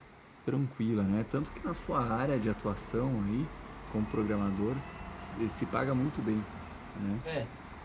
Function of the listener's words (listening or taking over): taking over